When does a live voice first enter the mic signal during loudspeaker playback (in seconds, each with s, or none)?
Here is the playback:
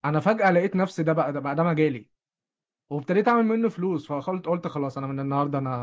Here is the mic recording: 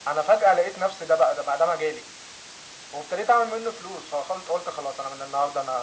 none